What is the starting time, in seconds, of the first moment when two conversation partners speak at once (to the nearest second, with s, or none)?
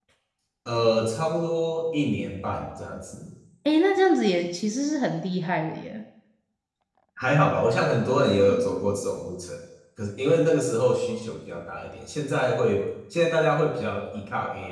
none